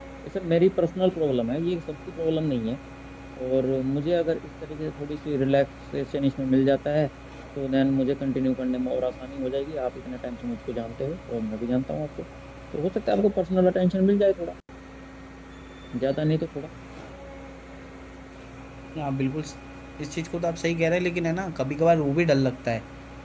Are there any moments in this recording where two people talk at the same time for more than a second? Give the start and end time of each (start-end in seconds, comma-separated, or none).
none